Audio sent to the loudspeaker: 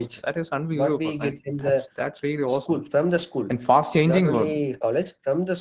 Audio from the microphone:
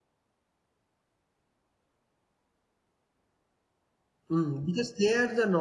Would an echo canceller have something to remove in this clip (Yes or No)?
No